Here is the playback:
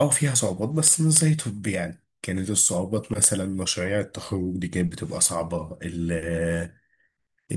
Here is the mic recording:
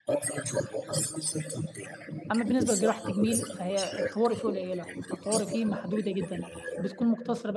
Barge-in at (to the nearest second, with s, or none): 2 s